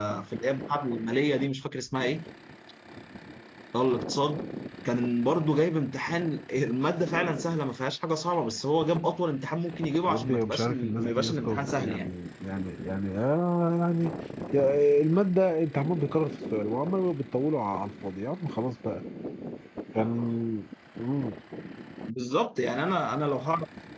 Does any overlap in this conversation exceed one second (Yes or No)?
Yes